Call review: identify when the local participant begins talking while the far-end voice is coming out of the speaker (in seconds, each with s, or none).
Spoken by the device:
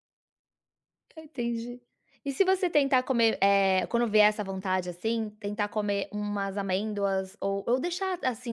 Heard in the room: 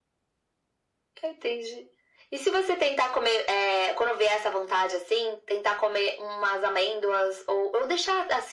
none